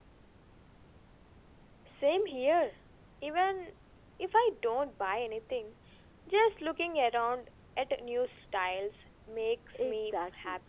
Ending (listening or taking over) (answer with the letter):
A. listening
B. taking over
B